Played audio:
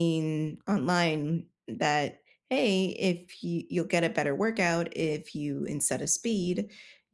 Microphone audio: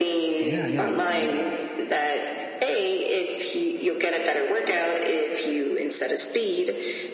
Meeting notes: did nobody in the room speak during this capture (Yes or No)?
No